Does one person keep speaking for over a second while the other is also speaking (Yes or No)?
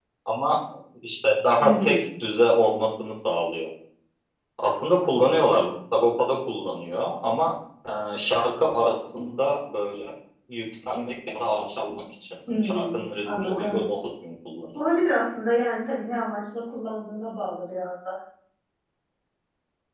Yes